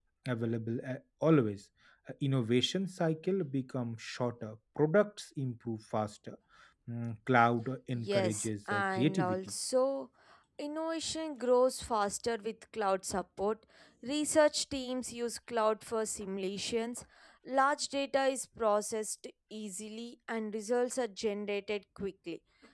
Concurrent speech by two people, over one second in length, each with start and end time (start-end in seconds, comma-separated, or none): 7.9-9.4